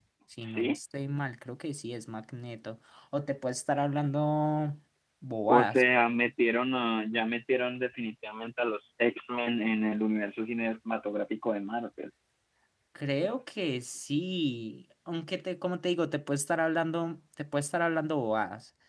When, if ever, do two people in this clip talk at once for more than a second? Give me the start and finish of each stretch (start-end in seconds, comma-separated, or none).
none